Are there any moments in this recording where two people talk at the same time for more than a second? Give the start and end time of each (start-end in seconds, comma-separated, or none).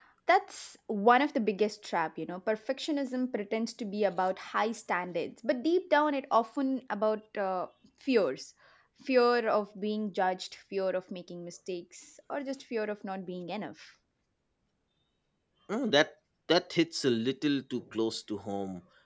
none